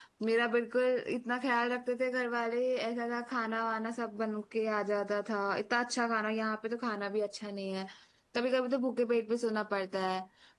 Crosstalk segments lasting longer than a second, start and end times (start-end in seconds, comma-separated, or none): none